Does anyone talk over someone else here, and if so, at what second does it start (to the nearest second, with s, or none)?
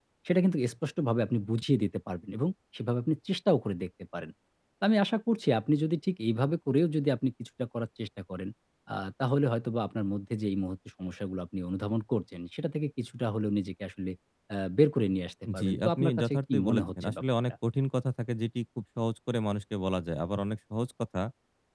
15 s